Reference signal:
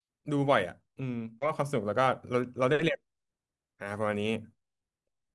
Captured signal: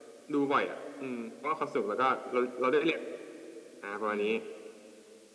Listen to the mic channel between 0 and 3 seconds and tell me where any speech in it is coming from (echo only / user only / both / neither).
echo only